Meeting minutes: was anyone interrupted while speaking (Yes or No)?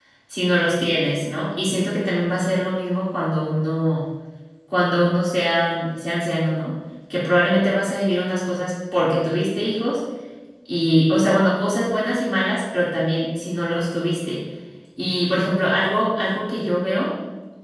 No